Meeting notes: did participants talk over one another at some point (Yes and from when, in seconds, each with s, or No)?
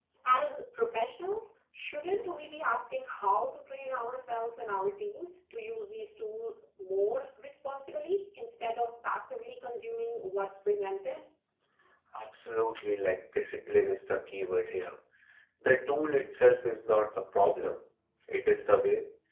No